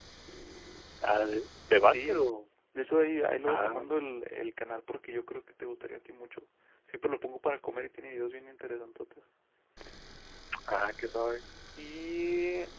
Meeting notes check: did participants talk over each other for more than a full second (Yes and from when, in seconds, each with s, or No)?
No